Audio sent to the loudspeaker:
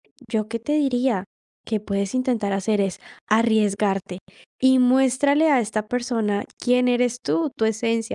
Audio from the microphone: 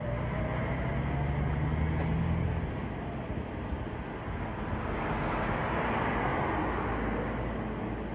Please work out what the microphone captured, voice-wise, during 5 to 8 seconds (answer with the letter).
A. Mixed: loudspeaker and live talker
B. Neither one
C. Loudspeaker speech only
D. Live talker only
B